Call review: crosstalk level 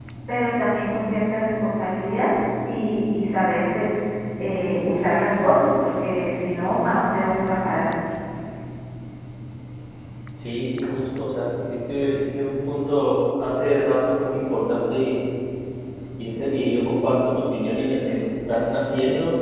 none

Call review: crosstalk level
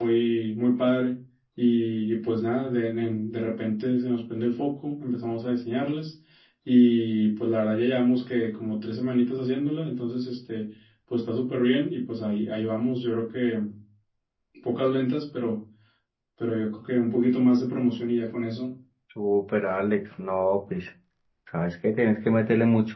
none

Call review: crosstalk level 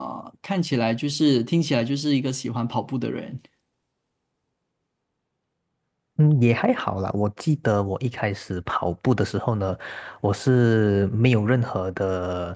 none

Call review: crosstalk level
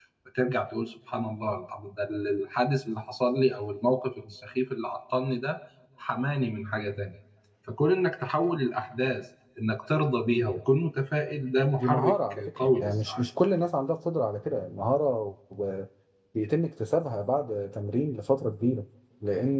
present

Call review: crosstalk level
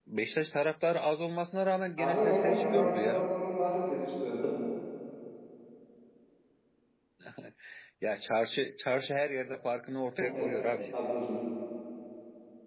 present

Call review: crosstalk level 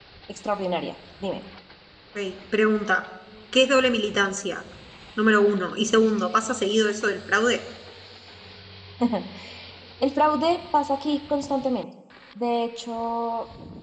none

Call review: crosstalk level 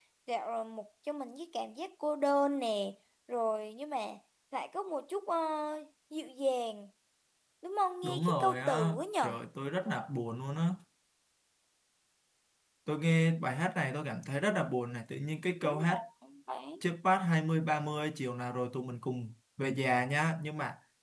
present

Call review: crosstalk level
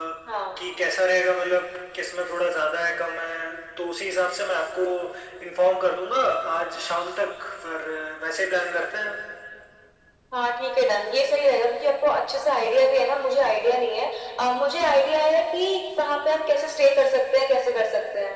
none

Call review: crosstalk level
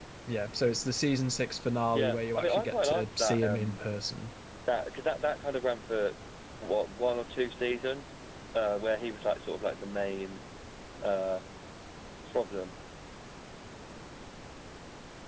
present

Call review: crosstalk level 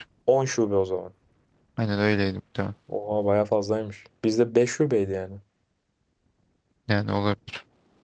none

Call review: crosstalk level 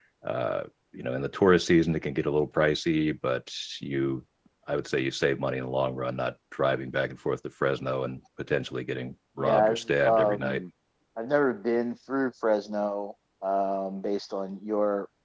present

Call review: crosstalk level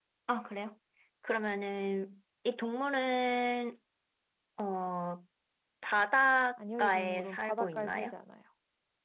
present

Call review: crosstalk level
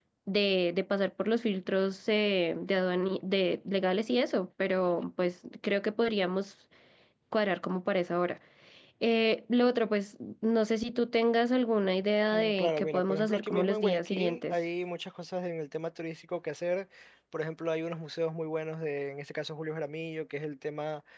present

